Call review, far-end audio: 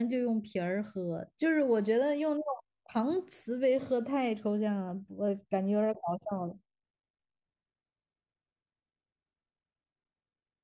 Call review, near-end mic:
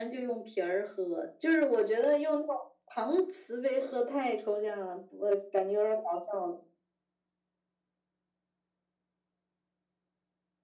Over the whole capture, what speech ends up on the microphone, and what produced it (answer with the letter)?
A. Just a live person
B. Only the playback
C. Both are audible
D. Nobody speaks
B